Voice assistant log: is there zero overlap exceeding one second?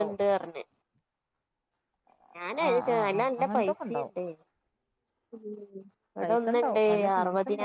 No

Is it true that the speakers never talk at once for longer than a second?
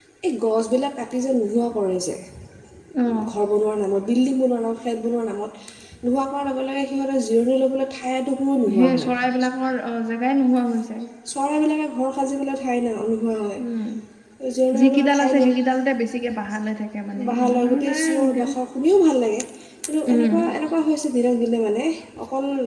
No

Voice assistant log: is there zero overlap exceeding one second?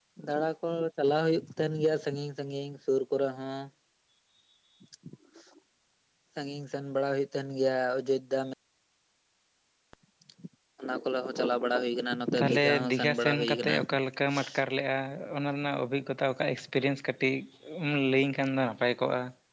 No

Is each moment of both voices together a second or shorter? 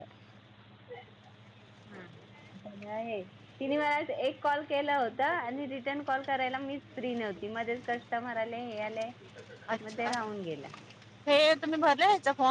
Yes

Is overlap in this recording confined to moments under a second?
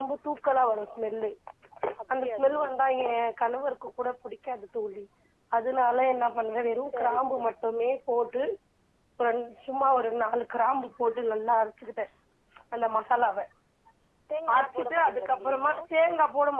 No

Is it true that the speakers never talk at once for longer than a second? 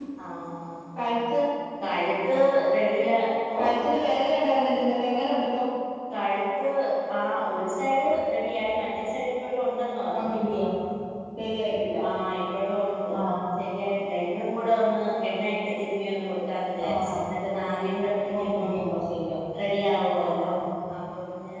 Yes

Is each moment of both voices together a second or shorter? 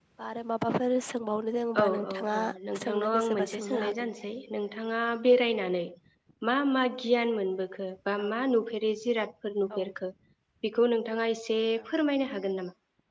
No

